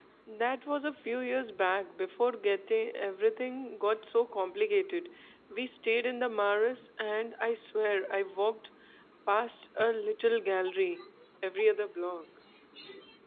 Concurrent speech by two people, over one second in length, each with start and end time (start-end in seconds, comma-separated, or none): none